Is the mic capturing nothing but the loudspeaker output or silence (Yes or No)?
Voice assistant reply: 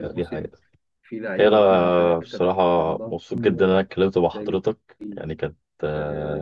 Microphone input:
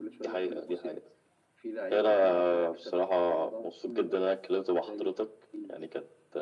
Yes